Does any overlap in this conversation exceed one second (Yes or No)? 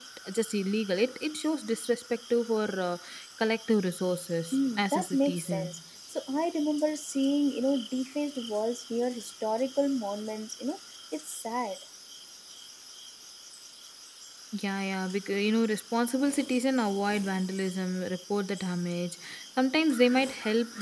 Yes